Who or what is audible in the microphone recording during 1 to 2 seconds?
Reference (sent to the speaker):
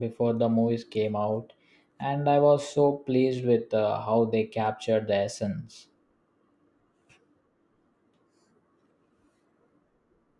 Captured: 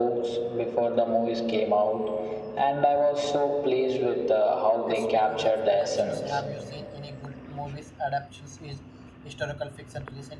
echo only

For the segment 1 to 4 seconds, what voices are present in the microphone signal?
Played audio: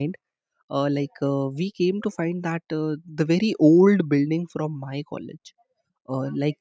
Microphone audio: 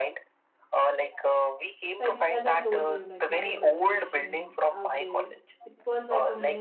both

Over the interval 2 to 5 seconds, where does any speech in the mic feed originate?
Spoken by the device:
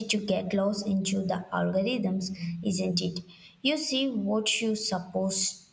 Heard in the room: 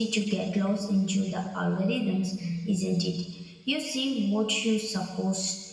echo only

